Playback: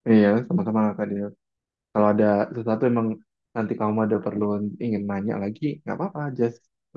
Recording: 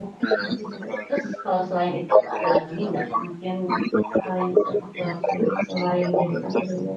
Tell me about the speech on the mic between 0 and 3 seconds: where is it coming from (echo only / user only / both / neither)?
both